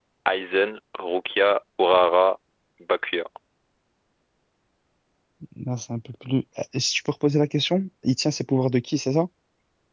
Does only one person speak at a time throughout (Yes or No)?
Yes